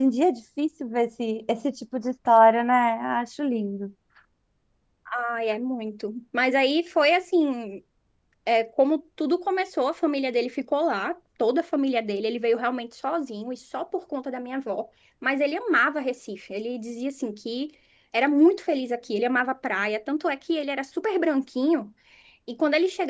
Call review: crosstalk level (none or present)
none